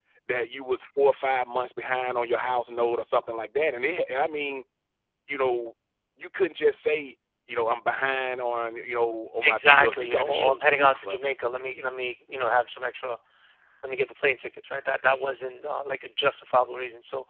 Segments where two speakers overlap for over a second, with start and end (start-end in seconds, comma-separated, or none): 9.4-11.3